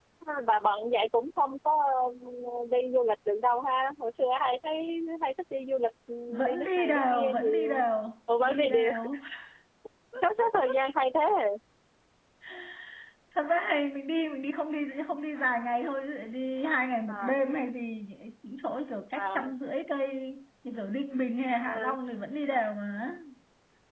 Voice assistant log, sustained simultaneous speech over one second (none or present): present